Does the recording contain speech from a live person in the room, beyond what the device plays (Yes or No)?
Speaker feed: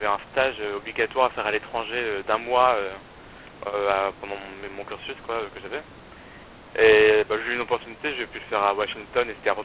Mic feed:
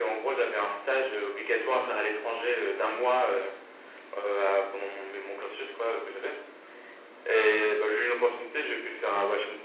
No